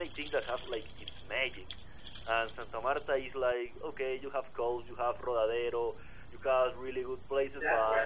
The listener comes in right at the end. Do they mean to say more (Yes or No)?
Yes